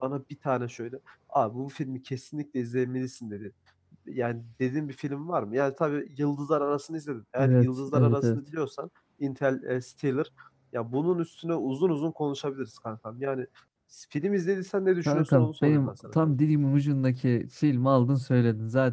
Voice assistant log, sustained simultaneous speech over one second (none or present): present